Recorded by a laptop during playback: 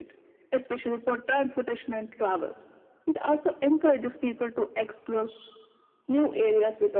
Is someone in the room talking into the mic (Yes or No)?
No